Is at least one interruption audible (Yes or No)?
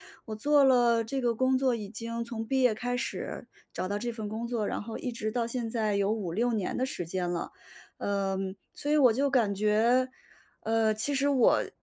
No